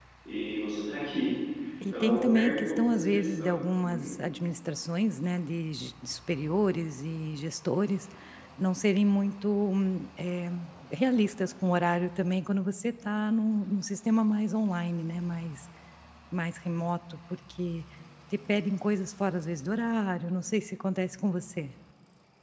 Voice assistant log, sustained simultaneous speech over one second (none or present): present